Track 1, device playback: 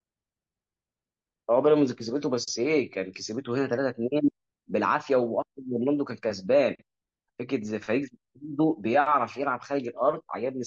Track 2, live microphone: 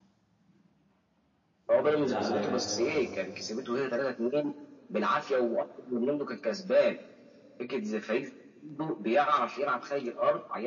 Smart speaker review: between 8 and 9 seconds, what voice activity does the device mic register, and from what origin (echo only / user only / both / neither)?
echo only